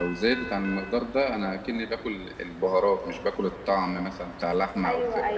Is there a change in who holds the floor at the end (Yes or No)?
Yes